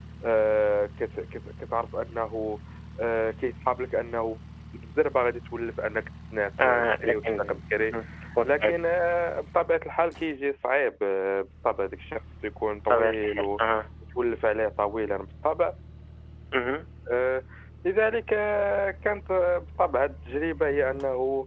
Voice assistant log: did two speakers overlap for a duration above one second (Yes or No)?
Yes